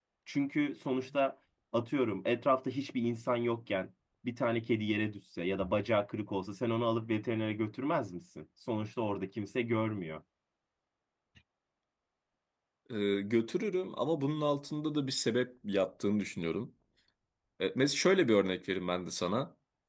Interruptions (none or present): none